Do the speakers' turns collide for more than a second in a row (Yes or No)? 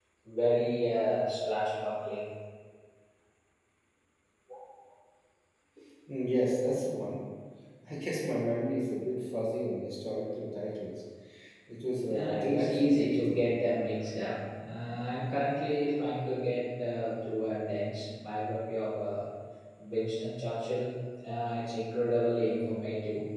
Yes